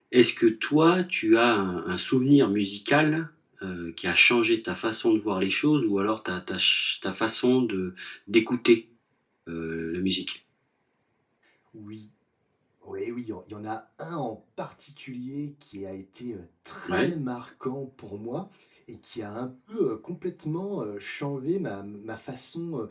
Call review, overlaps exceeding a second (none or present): none